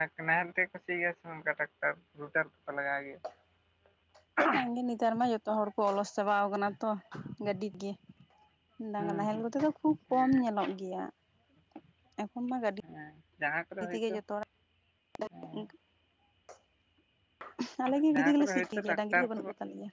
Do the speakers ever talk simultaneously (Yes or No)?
Yes